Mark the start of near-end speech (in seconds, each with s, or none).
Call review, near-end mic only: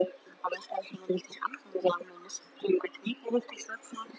none